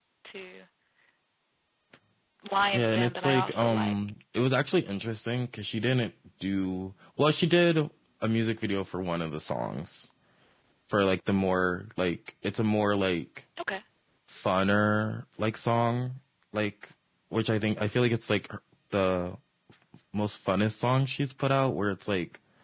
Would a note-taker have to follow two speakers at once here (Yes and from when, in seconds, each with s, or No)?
Yes, from 2.7 s